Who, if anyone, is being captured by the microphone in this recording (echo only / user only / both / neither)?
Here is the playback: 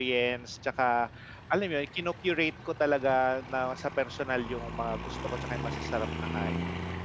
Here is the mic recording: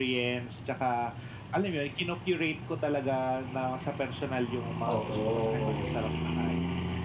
both